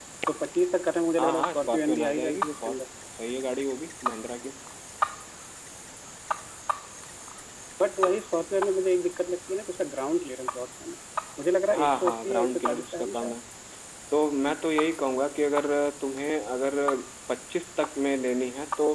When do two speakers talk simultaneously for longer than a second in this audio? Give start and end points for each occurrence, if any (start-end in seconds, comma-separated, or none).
1.2-2.7, 11.7-13.4